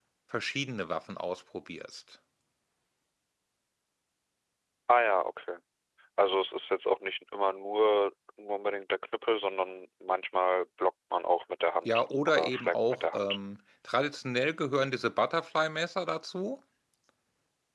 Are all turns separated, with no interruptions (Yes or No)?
No